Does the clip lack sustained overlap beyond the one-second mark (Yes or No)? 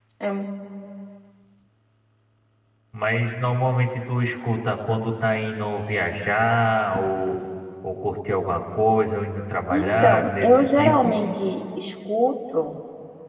No